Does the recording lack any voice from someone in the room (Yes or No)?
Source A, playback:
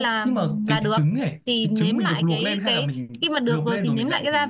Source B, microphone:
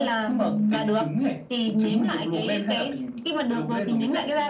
Yes